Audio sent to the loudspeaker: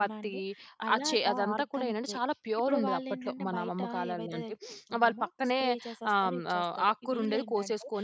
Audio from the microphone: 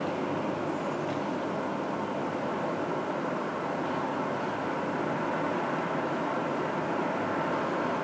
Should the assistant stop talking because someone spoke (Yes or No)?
No